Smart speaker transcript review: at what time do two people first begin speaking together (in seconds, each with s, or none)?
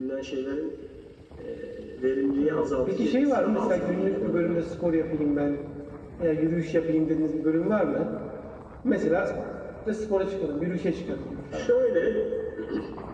2.4 s